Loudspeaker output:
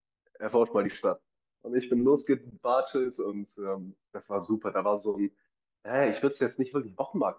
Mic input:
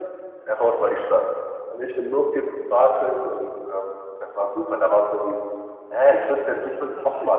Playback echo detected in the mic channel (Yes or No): Yes